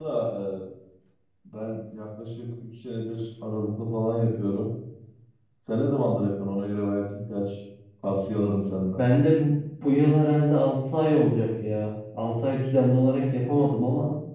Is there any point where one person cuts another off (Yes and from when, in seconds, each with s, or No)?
No